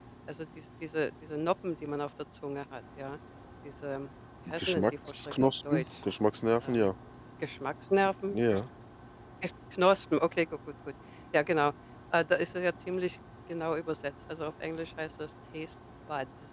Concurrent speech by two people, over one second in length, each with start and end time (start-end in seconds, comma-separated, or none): 4.5-5.8